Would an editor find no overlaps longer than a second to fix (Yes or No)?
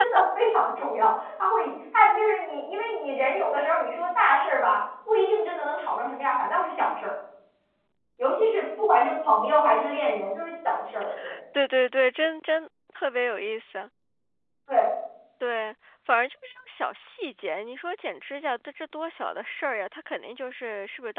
Yes